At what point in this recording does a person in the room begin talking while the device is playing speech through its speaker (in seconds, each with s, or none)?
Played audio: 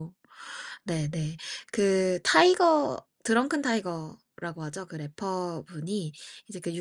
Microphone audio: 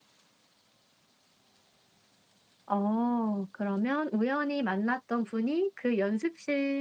2.7 s